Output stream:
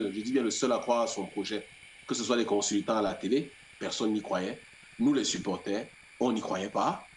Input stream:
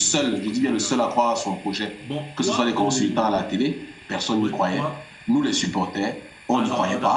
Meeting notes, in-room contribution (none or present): present